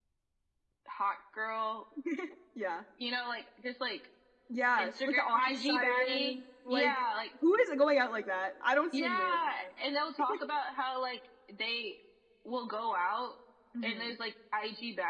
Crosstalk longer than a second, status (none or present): present